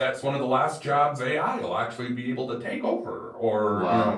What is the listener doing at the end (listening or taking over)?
taking over